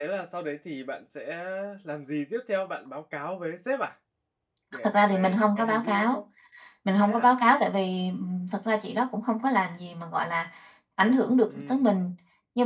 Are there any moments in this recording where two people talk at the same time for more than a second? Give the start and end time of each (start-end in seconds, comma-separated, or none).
4.8-6.2